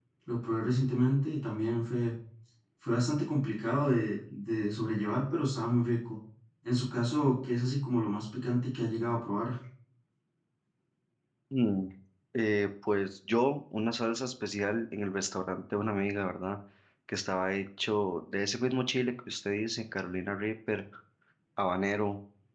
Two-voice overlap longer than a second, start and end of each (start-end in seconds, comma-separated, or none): none